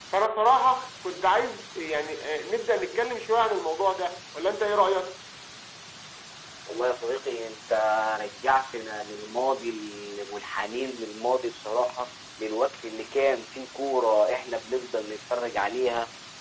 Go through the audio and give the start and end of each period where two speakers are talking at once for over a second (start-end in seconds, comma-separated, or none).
none